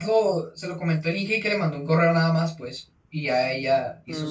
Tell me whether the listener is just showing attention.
No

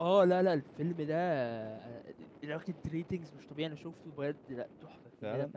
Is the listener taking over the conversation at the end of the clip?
Yes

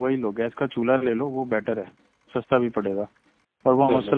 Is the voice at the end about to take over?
No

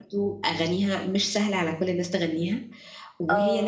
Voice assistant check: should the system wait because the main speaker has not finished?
Yes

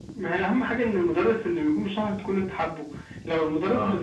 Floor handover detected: No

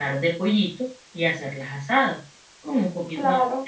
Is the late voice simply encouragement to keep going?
Yes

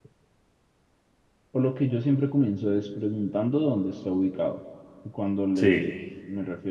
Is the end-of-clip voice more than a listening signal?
No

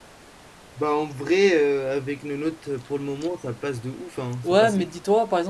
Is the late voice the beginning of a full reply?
Yes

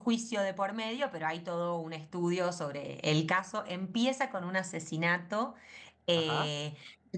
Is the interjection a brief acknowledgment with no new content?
Yes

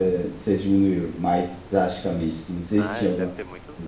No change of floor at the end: No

